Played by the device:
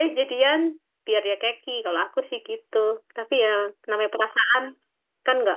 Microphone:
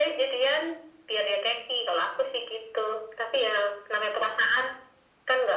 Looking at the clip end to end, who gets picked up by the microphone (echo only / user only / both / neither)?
echo only